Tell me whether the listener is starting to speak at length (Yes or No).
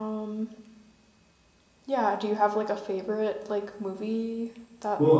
Yes